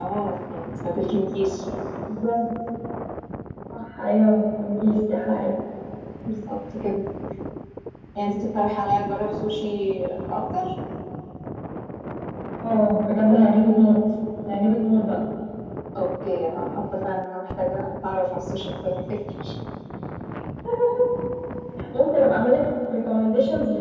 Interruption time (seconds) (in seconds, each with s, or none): none